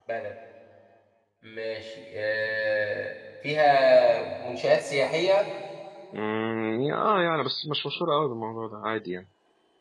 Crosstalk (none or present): none